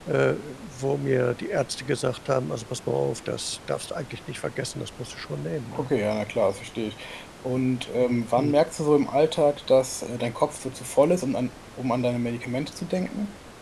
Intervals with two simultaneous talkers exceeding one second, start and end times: none

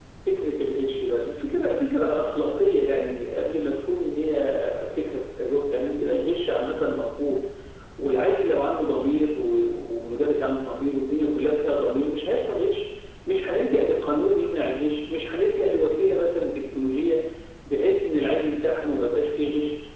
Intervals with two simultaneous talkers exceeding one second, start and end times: none

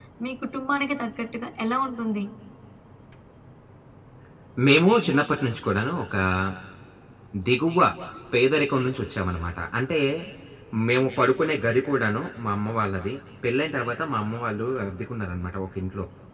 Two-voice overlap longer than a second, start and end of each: none

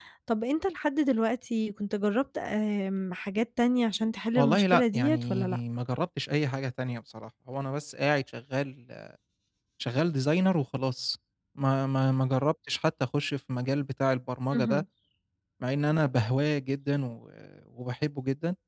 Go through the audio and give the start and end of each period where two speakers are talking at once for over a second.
4.4-5.6

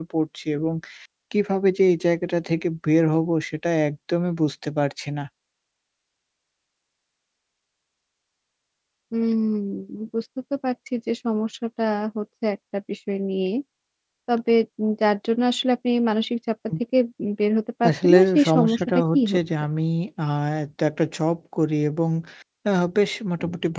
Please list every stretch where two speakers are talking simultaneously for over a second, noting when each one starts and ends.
17.9-19.4

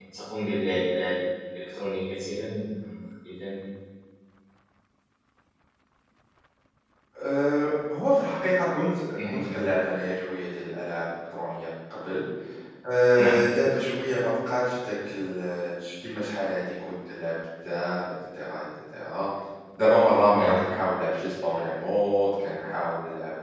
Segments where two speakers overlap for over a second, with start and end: none

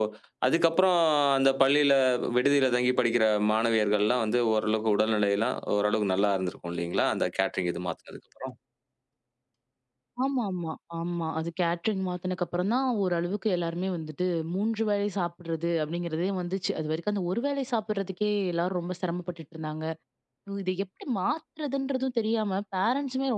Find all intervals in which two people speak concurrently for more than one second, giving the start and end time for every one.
none

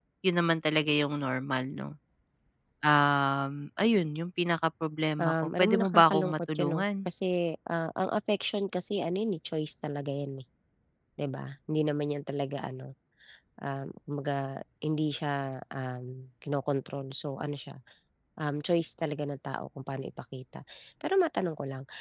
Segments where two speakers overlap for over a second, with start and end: 5.2-7.1

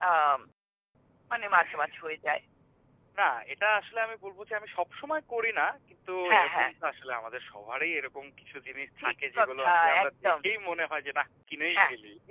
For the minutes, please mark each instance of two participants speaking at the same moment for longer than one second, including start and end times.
9.0-10.3

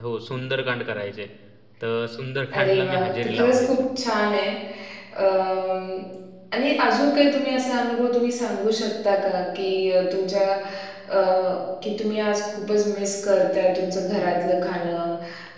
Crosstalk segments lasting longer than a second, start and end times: 2.5-3.8

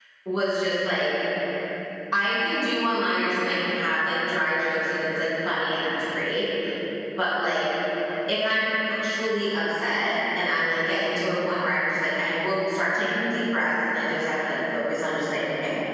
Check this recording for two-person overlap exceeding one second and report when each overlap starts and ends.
none

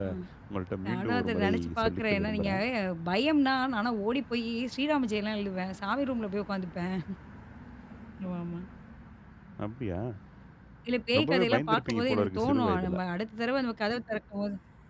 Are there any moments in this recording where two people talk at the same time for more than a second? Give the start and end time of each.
0.8-2.6, 11.2-12.9

